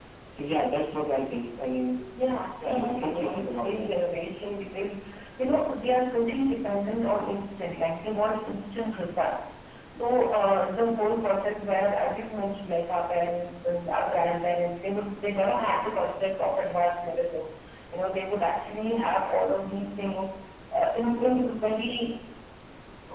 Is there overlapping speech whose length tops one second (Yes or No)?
Yes